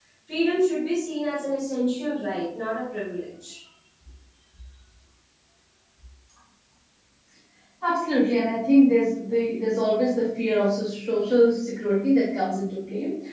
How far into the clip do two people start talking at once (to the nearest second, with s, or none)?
none